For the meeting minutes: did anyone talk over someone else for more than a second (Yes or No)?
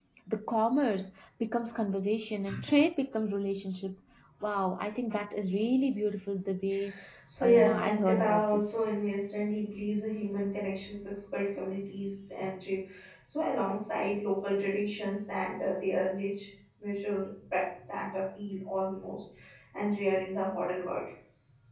Yes